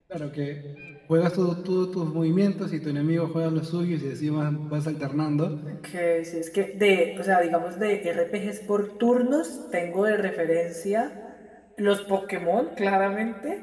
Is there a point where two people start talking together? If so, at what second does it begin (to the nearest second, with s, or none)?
none